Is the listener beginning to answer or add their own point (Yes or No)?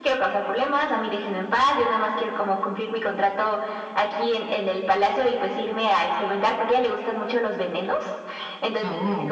No